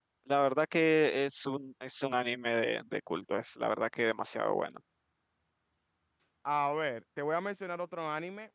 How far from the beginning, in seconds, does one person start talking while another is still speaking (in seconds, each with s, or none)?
none